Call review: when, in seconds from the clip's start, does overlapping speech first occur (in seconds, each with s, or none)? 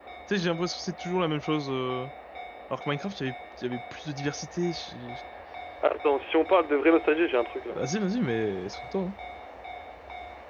none